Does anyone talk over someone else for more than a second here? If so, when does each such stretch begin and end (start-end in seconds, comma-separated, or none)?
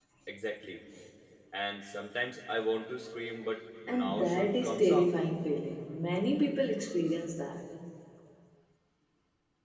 3.9-5.1